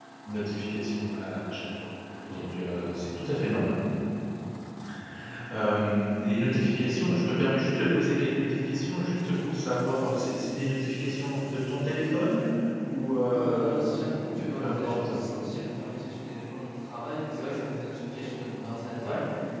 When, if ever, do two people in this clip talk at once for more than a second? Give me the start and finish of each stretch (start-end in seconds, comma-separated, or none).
13.3-15.1